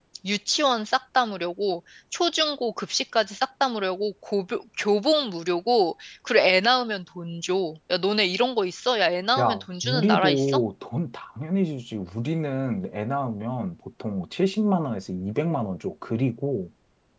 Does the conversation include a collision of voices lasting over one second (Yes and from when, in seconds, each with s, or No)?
Yes, from 9.4 s